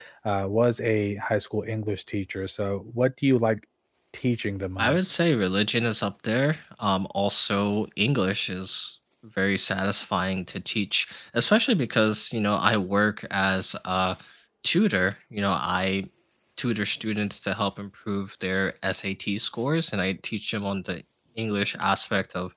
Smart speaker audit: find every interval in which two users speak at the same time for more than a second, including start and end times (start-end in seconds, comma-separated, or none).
none